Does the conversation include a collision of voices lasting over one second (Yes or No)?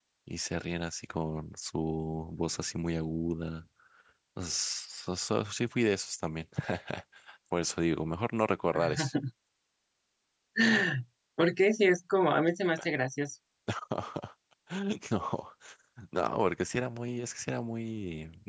No